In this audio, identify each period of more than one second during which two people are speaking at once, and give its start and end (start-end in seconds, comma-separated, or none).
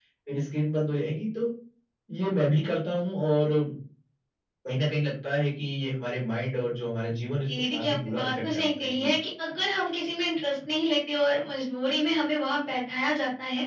7.5-9.1